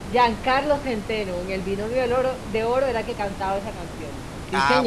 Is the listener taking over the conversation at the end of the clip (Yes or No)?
Yes